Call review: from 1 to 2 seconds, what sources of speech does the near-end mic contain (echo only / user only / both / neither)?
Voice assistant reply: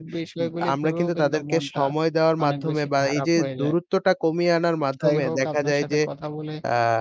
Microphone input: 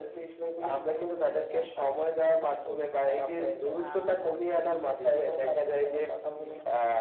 echo only